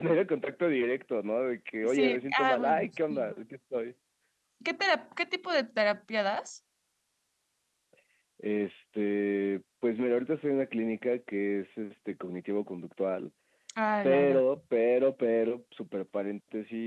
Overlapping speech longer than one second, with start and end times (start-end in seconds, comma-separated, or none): 1.8-3.3